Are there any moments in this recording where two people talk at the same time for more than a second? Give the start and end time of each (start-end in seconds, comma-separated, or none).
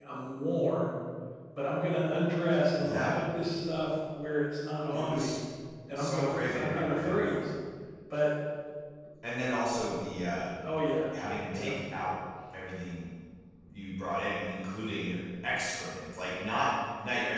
6.0-7.4